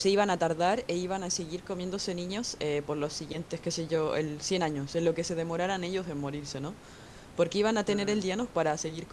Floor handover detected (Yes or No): No